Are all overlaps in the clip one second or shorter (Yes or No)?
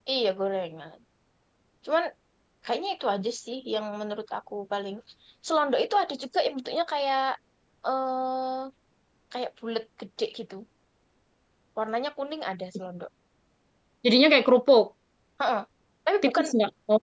Yes